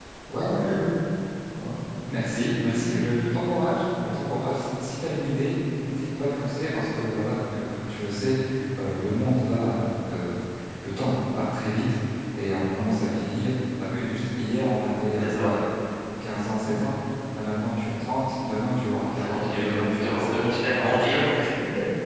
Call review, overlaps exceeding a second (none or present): present